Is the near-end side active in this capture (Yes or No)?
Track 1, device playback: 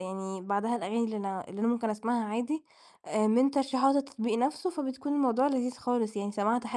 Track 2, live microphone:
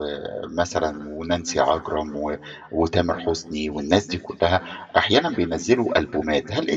Yes